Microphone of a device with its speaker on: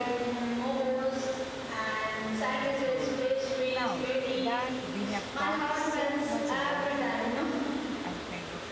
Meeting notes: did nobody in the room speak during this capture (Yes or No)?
No